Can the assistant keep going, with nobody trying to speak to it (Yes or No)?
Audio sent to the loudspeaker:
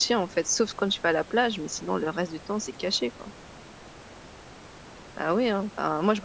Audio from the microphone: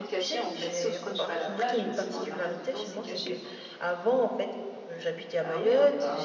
No